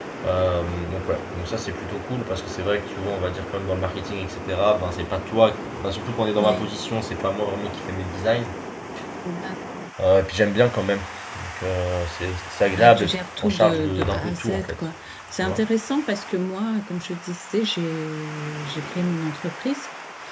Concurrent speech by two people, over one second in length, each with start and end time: 12.7-14.9

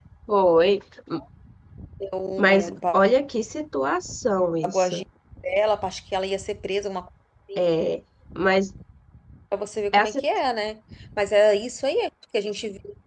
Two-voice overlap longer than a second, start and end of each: none

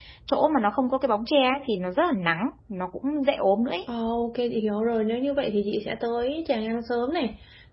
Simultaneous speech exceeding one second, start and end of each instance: none

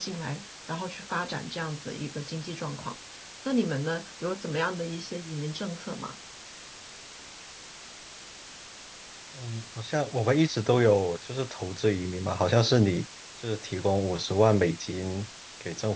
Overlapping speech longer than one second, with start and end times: none

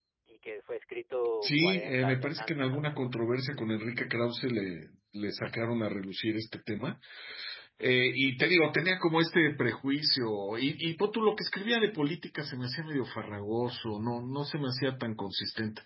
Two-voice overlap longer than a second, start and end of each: 1.4-3.4

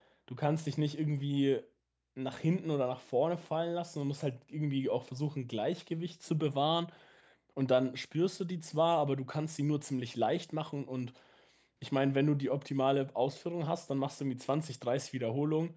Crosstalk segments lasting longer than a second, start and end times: none

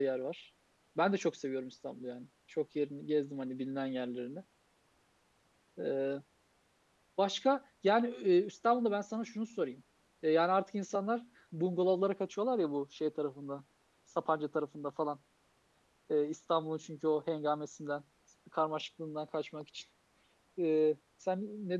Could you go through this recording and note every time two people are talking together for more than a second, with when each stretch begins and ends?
none

